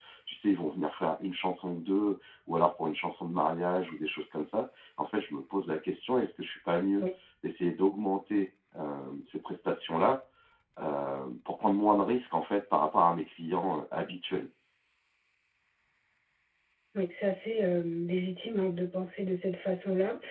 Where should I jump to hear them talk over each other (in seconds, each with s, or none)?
none